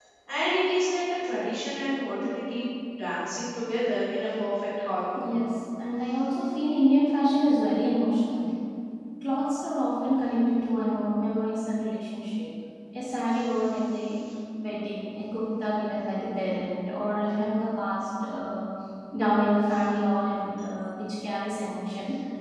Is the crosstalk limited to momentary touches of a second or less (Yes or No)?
Yes